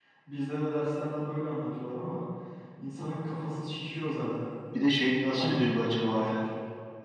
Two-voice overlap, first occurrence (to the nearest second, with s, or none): 5 s